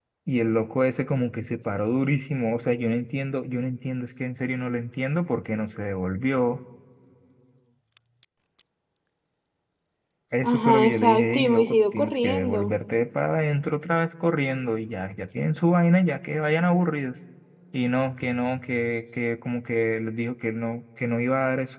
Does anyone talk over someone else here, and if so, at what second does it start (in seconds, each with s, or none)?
10.4 s